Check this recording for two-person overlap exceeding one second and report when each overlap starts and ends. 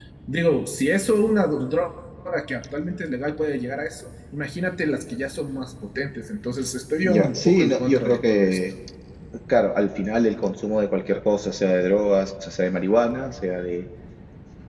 7.0-8.6

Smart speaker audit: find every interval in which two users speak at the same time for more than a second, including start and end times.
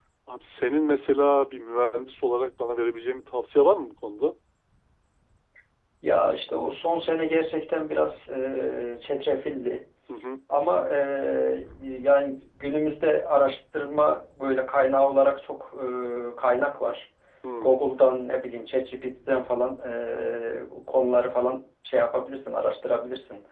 none

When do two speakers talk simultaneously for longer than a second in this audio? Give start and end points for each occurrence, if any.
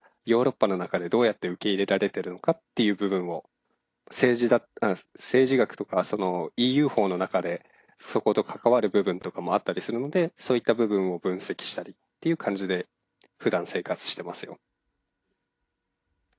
none

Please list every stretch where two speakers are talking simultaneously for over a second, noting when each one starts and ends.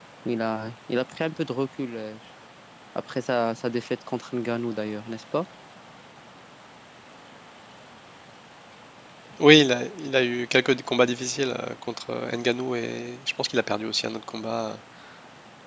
none

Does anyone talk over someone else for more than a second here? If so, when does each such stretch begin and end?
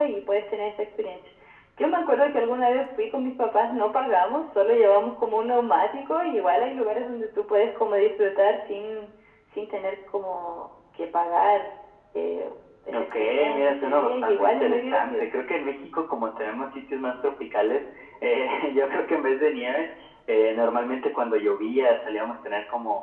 13.0-15.2

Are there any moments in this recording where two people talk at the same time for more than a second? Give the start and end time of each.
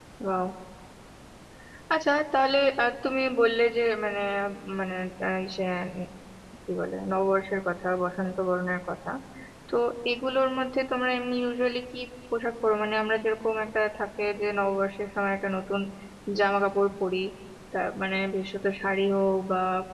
none

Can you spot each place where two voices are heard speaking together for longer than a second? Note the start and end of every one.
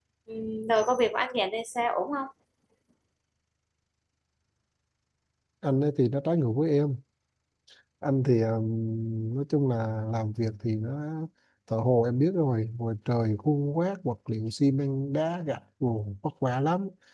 none

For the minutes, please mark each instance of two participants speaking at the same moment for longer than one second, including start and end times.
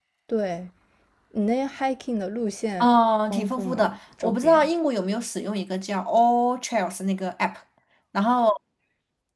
3.3-4.7

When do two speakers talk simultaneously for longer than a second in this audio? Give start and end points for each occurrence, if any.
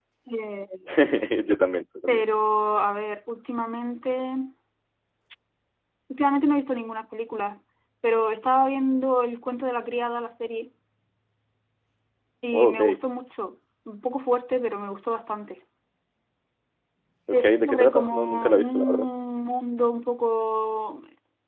17.3-19.1

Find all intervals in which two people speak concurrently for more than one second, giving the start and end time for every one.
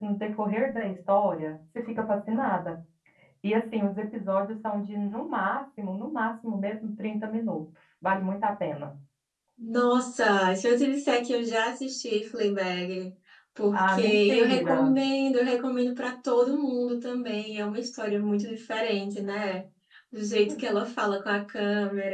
13.7-15.0

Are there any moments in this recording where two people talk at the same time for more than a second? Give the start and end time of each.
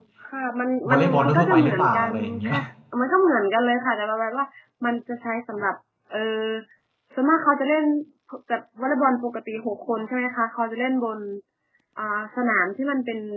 0.9-2.5

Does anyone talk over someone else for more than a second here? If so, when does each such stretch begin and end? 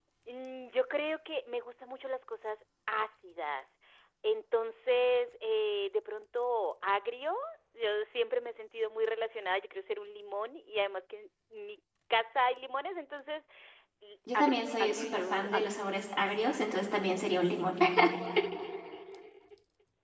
14.3-15.8

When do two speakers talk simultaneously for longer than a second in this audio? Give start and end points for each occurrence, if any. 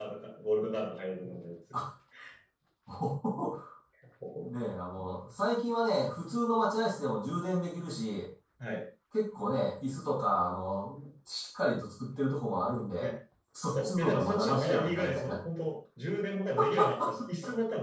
13.7-15.4

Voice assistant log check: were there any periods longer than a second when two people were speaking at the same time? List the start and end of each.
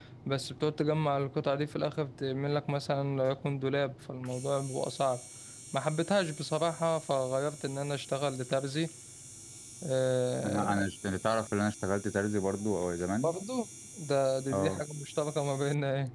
none

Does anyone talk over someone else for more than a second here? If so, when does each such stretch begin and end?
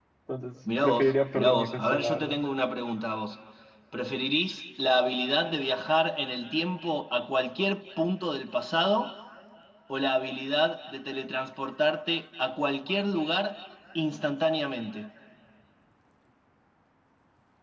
0.8-2.4

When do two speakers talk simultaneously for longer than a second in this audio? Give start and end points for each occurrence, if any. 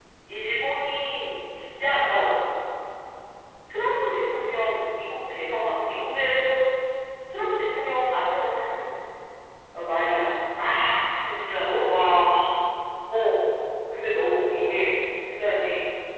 none

